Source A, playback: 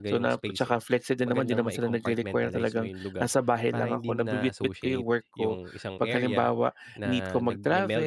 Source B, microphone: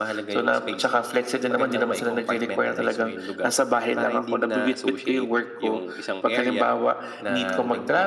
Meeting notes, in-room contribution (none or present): none